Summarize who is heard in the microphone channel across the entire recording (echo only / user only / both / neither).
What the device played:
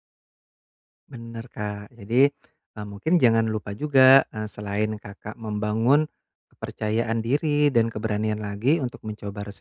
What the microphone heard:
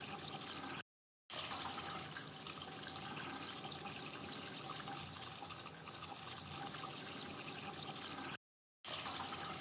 neither